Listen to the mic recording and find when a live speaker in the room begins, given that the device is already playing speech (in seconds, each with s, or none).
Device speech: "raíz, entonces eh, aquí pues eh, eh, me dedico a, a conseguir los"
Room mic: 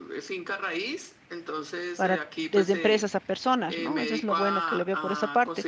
1.9 s